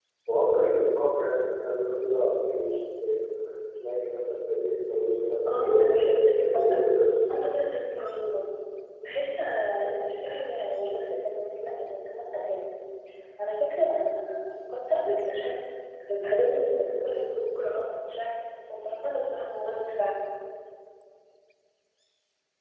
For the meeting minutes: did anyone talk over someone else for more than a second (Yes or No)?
Yes